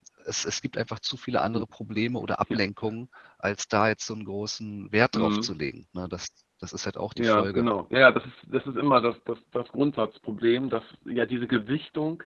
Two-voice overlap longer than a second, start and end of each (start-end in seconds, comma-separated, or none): none